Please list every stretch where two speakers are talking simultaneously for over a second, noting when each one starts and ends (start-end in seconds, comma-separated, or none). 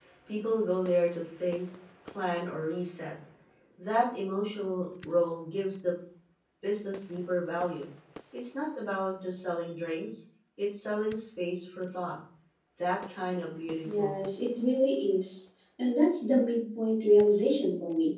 none